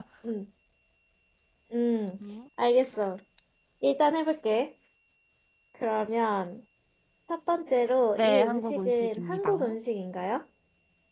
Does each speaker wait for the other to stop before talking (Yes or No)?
No